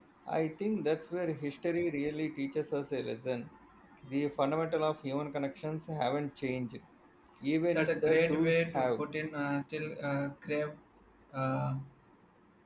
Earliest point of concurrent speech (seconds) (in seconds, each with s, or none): 7.7 s